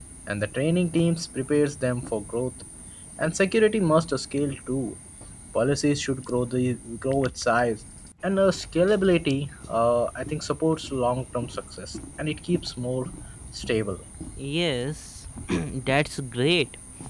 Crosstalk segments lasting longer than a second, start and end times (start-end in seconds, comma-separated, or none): none